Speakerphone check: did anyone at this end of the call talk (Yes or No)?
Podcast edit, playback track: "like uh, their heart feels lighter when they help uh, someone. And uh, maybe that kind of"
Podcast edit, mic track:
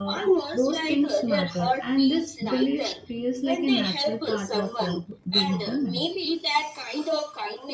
Yes